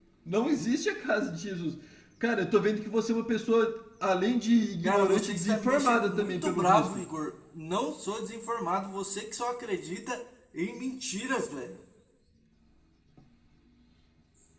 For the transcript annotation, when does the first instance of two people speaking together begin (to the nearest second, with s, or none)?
5 s